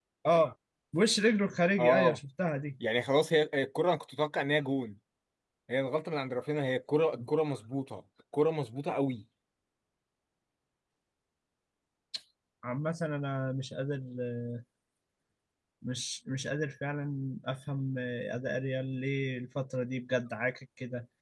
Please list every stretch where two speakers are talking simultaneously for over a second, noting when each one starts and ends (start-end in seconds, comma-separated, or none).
none